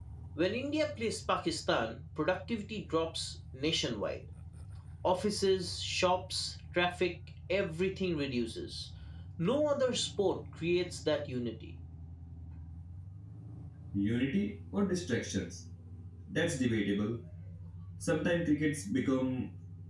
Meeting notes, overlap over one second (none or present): none